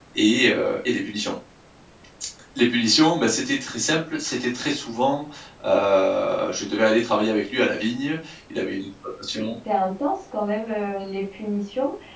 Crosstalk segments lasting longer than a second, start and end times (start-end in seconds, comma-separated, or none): none